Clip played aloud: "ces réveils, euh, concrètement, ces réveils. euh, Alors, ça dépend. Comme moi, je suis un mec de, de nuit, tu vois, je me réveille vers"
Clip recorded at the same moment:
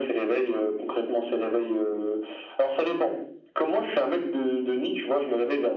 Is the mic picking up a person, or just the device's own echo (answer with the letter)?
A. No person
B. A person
A